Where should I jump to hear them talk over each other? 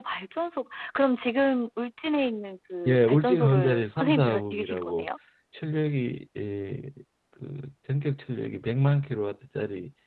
2.9 s

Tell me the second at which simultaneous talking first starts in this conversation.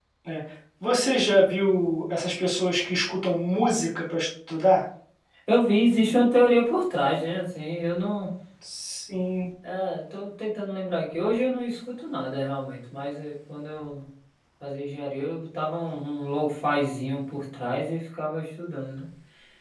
none

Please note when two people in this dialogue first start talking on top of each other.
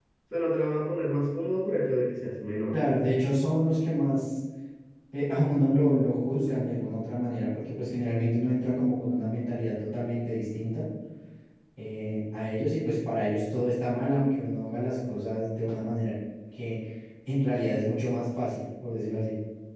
none

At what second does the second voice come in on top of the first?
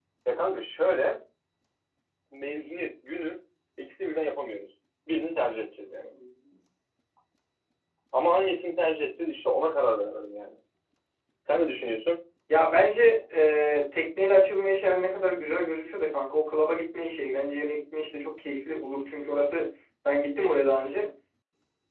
none

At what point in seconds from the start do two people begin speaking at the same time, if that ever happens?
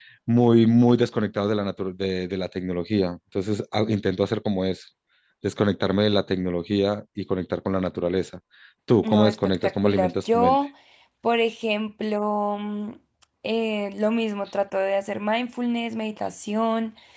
9.0 s

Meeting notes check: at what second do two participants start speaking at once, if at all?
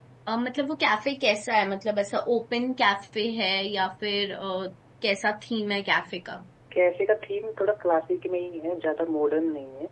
none

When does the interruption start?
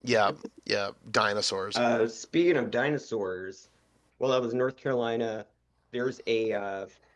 none

